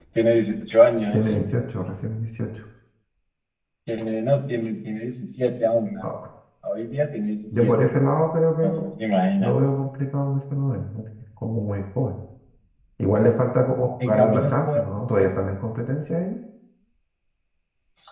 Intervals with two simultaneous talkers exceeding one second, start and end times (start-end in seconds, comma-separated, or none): 14.1-15.3